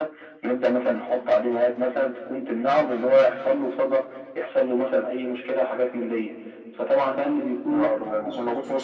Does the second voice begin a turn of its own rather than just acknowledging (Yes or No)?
Yes